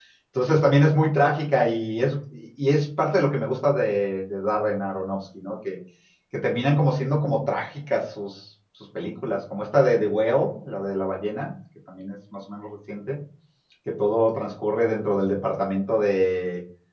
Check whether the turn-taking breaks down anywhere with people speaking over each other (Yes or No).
No